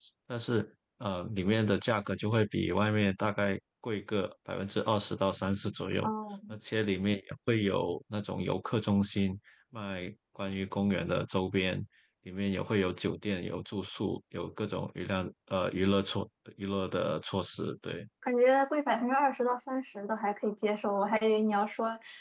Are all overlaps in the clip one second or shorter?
Yes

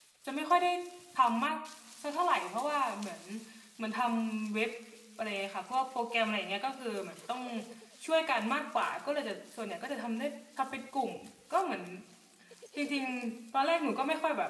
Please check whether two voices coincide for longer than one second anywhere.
No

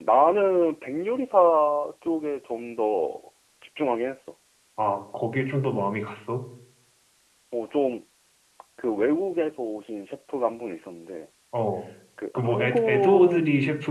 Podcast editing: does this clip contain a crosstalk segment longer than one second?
Yes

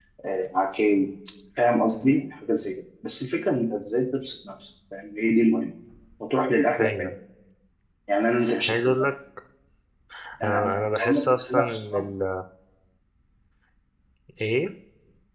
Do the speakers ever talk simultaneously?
Yes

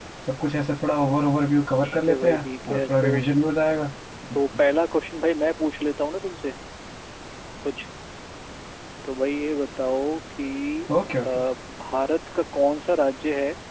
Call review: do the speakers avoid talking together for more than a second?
No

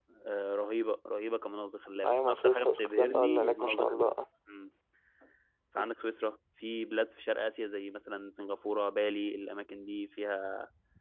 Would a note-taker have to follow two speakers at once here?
Yes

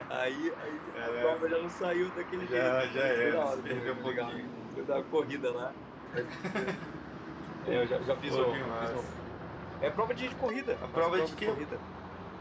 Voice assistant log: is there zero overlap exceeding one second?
No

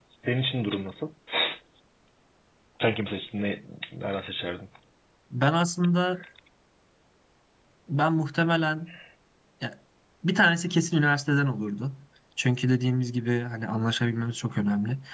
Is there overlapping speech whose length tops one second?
No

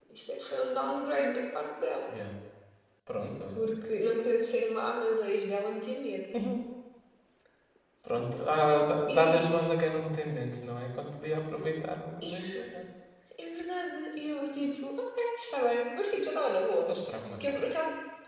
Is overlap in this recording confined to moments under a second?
Yes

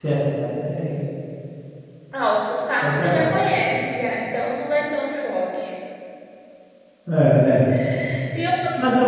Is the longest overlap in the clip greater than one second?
No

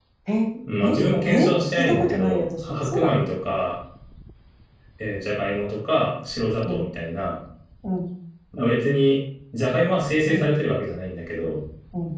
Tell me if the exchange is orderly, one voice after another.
No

